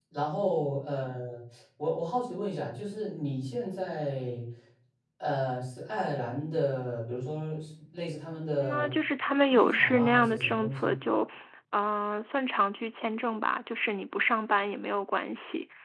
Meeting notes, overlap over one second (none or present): present